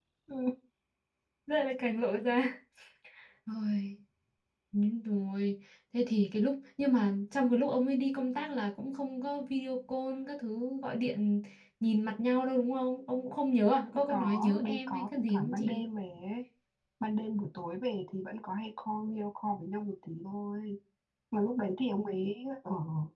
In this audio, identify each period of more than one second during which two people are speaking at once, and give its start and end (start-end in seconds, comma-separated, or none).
14.1-15.9